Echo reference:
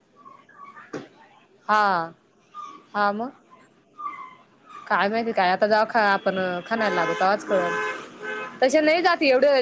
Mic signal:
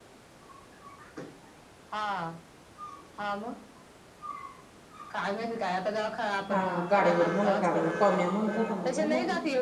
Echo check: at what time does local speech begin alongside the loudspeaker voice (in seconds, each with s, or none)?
6.5 s